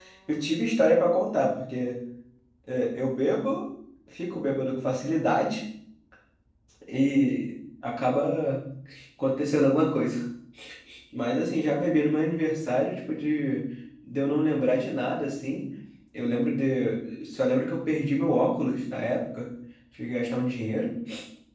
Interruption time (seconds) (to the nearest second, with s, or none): none